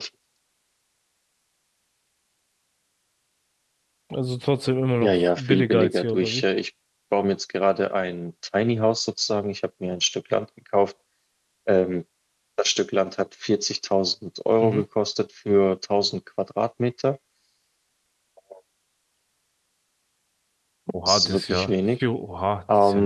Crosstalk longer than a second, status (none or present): present